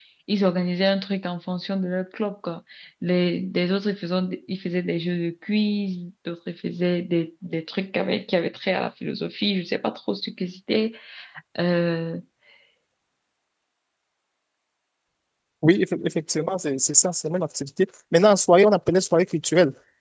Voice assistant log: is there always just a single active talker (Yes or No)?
Yes